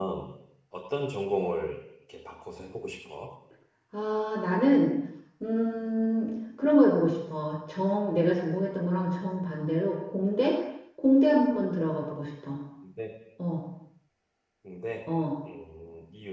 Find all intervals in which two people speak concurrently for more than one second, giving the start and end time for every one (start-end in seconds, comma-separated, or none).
none